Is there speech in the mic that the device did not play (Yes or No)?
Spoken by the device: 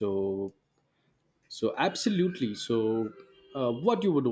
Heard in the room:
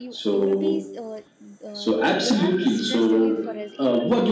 Yes